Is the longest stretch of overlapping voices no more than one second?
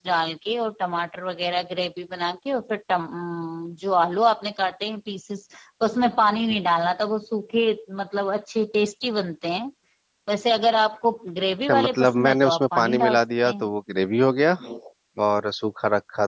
No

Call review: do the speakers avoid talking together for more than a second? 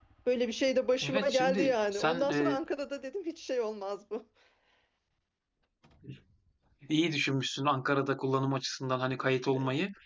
No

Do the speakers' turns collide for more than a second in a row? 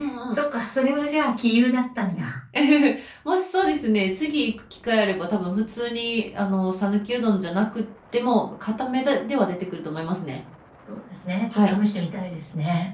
No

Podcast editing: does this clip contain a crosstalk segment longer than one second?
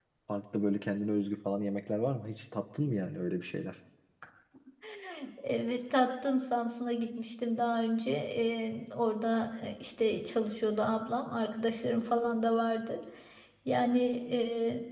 No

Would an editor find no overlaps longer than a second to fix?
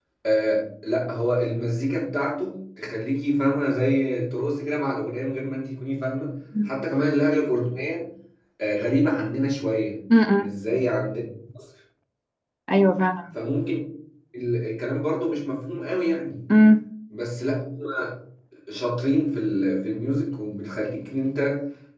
Yes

